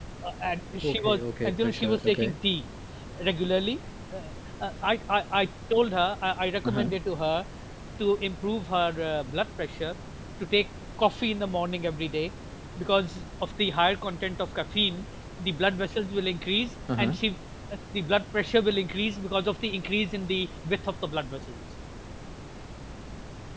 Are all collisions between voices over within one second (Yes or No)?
No